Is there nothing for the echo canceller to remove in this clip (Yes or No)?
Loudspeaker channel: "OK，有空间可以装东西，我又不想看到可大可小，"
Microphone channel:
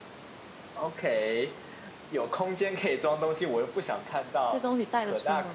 No